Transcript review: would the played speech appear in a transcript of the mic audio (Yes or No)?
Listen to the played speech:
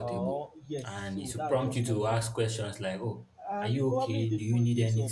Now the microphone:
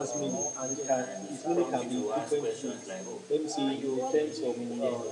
Yes